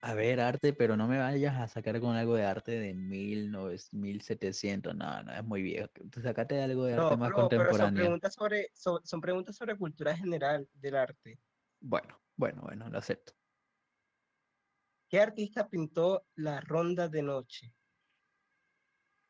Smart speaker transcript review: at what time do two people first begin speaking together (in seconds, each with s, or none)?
6.9 s